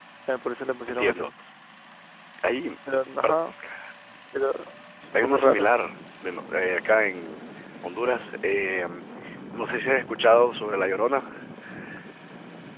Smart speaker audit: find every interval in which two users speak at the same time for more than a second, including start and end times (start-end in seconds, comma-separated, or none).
none